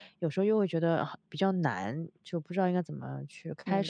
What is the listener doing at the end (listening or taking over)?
taking over